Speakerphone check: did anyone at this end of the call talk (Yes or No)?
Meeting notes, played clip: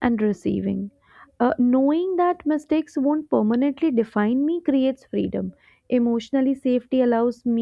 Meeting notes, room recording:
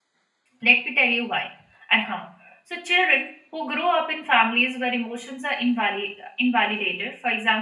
Yes